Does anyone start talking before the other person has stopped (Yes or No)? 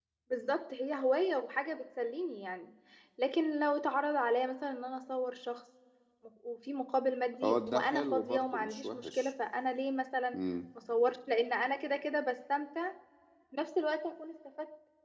Yes